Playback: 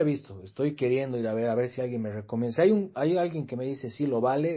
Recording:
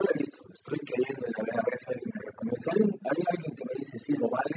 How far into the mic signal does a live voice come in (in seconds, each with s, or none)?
none